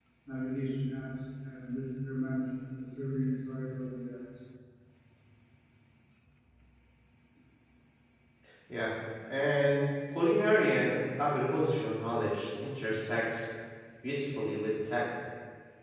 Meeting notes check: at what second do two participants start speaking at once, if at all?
none

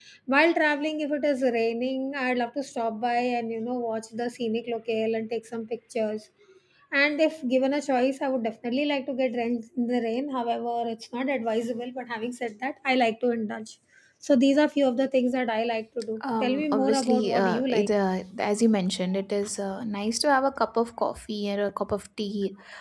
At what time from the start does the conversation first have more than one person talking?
16.2 s

